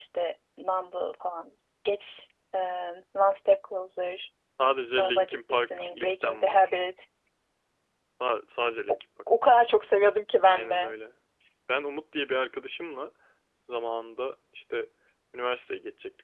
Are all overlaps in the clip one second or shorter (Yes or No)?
No